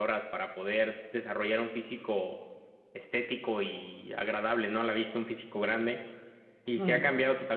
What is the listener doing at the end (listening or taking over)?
listening